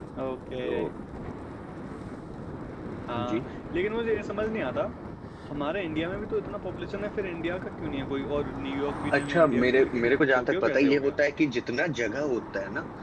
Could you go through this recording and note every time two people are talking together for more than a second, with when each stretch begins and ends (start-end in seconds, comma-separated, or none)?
9.1-11.2